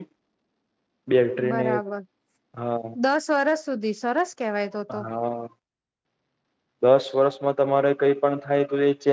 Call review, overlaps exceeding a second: none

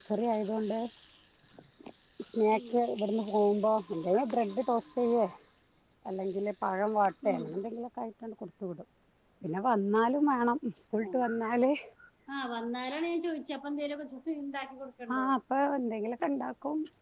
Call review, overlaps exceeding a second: none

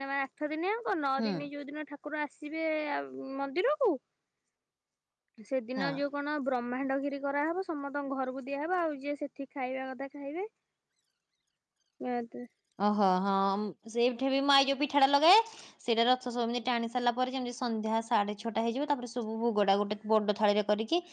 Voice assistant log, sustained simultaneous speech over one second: none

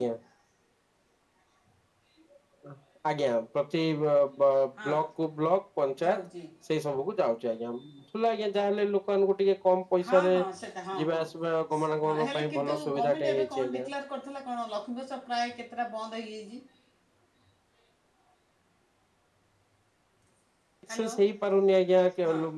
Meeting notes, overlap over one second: present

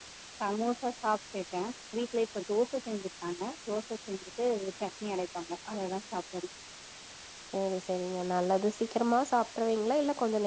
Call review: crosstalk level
none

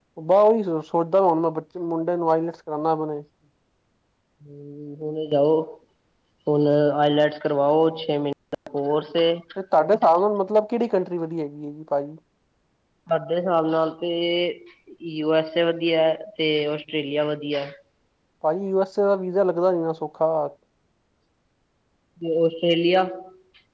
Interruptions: none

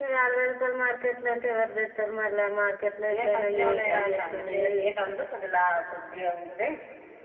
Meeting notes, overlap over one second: present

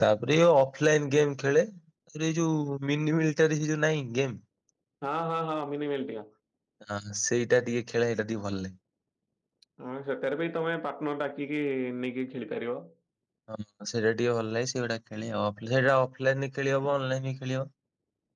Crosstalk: none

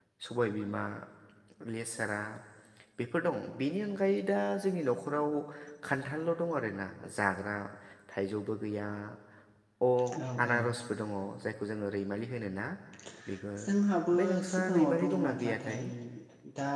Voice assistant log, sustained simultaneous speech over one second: present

